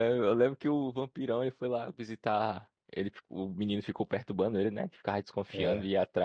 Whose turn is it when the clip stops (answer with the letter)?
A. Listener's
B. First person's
B